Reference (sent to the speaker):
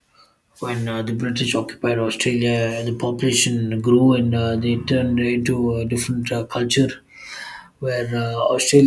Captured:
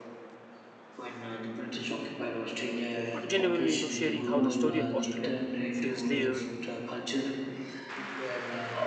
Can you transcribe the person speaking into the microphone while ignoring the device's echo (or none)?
but genuinely, you know, sharing how the story of Australia feels layered,